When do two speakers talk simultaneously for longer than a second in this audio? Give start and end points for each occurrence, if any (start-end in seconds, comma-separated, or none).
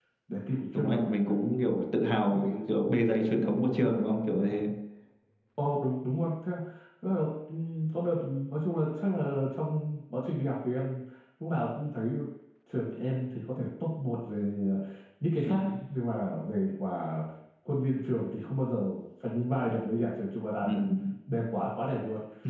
none